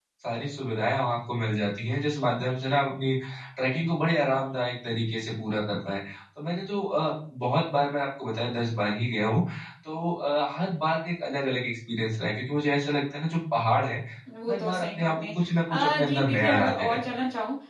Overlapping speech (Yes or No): Yes